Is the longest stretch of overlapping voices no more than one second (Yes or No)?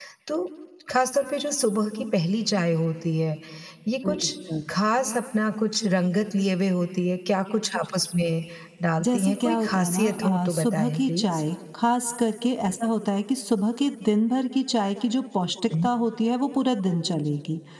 No